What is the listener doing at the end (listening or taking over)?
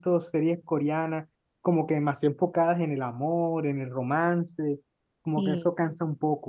listening